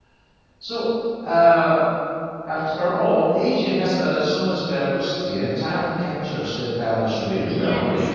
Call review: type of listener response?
taking over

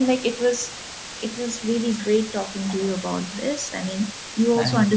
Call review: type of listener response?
listening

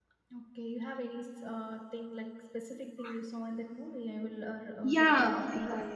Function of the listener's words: taking over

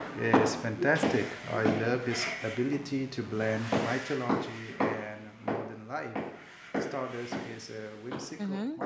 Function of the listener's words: taking over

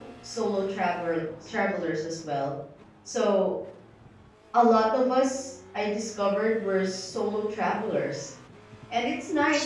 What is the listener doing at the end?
listening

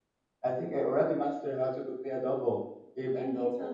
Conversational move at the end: taking over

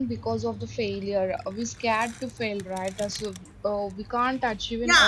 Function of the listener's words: taking over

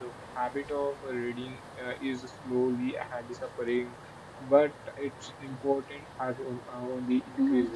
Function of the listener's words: taking over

